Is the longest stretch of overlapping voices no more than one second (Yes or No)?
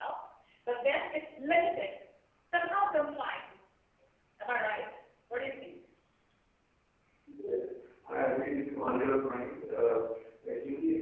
Yes